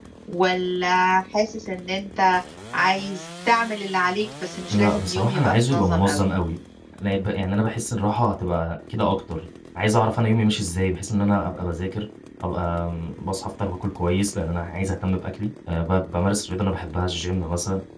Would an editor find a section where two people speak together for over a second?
Yes, from 4.7 s

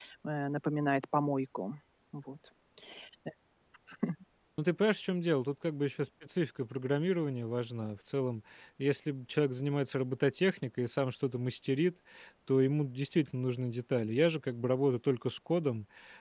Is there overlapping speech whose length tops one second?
No

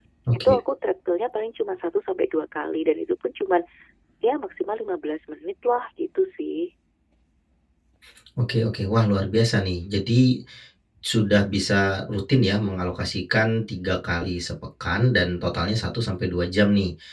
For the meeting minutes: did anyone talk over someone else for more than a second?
No

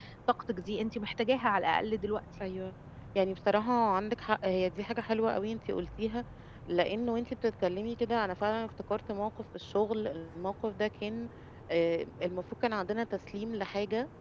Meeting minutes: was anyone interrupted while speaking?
No

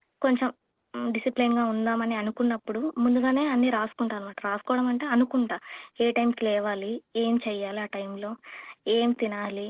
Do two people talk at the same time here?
No

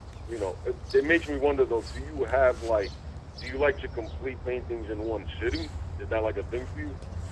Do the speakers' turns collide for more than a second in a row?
No

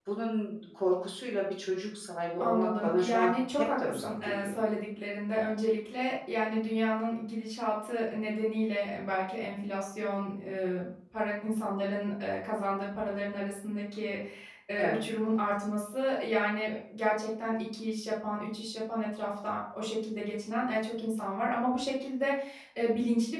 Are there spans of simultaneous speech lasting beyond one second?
Yes, from 2.4 s

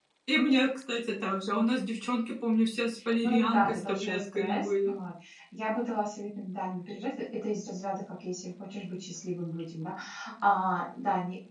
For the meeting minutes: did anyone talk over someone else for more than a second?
Yes, from 3.2 s

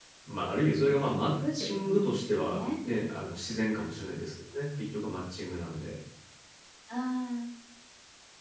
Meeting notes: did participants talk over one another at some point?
Yes, from 0.8 s

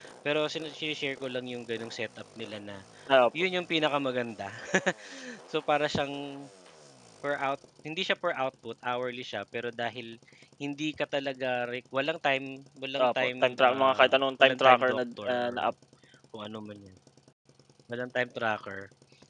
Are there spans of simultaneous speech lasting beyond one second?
Yes, from 13.0 s

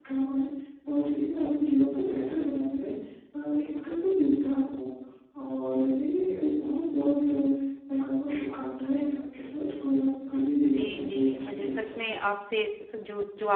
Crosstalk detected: Yes, from 10.7 s

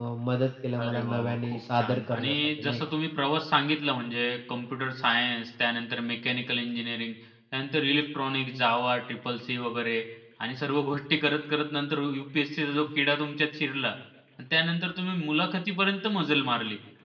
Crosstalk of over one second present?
Yes, from 0.8 s

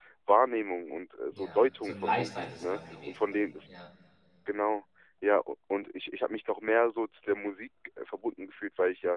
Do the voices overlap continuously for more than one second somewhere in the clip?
Yes, from 1.3 s

